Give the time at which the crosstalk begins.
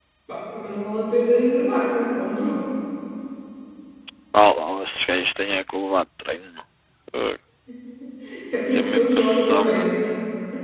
8.7 s

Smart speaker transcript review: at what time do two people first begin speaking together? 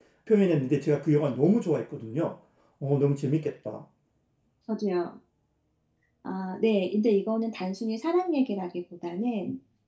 none

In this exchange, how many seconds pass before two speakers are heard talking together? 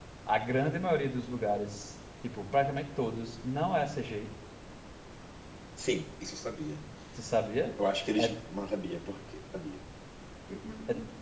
none

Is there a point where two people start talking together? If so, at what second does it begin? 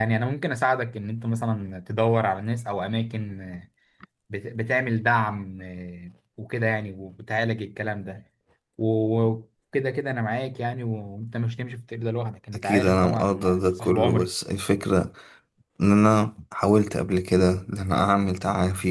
12.5 s

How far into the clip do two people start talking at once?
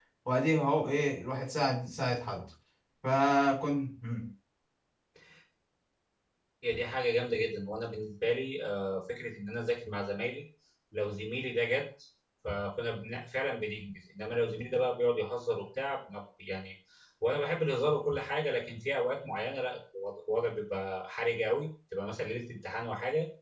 none

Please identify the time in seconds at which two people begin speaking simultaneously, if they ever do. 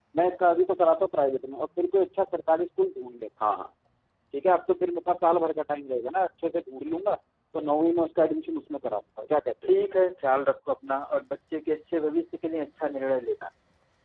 none

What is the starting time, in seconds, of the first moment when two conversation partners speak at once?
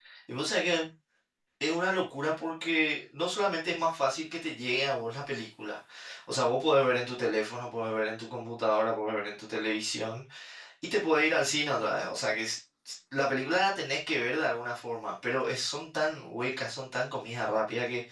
none

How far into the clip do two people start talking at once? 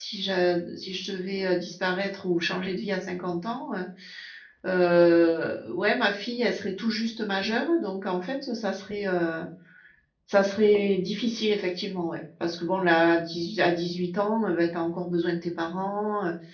none

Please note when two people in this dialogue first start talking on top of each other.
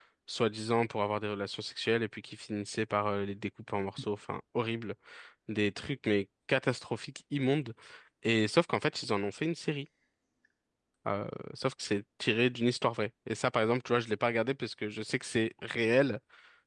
none

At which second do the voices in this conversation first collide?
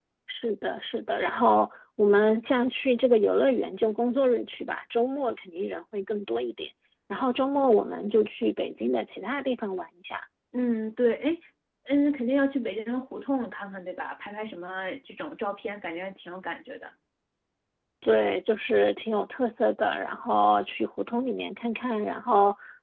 none

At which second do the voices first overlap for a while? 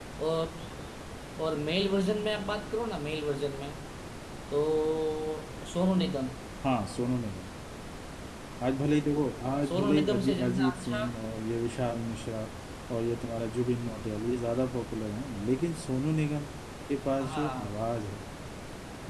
9.7 s

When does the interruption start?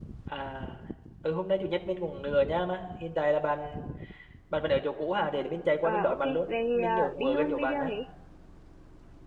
5.8 s

